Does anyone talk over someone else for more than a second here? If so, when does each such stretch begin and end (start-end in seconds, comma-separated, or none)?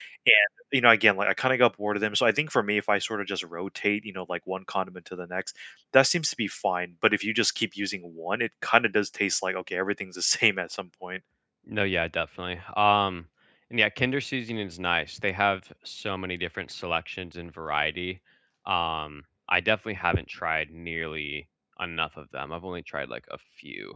none